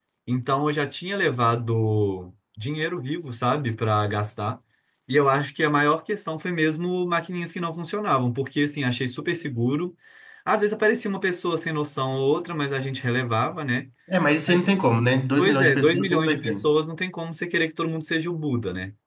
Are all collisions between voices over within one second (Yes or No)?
No